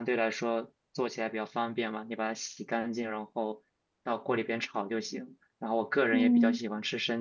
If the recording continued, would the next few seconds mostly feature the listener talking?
No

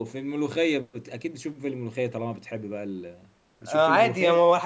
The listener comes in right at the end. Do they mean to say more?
Yes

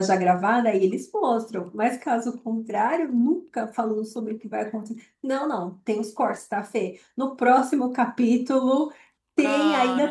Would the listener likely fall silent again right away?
Yes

